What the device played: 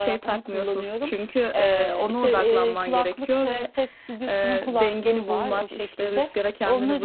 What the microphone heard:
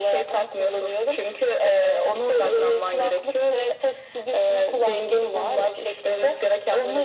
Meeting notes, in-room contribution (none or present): none